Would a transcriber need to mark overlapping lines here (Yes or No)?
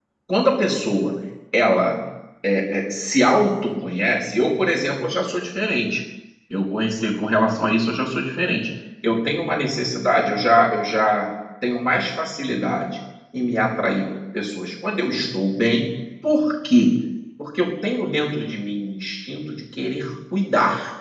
No